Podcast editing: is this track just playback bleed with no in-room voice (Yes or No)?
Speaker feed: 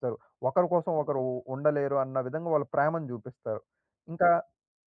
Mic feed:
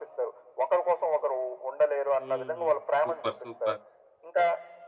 No